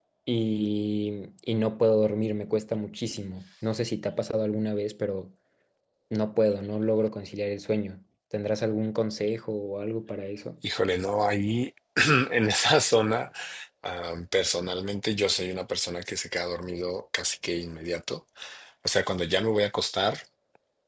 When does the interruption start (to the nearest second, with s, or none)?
none